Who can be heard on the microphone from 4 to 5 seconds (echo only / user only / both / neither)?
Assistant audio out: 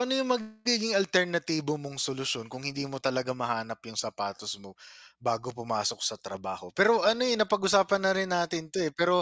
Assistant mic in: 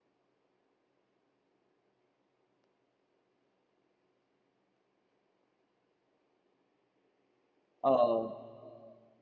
neither